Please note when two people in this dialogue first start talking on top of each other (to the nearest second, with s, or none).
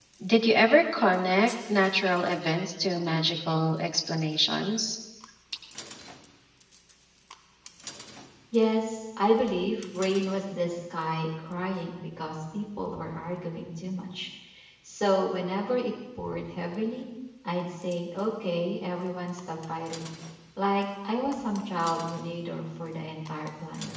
none